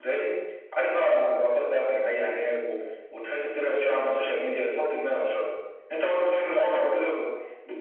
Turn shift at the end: No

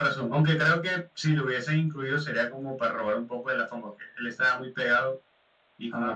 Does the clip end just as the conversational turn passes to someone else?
No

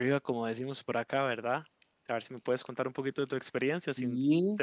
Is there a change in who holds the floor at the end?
Yes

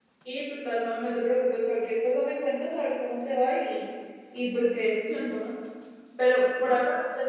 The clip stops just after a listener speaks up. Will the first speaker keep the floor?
Yes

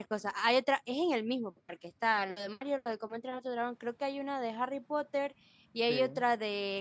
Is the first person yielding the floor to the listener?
No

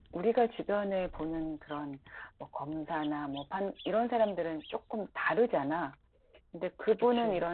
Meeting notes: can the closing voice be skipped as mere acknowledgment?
Yes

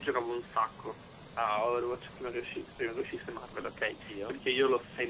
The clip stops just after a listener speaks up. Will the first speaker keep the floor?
Yes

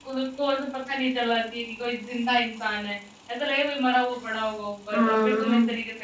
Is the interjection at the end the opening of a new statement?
No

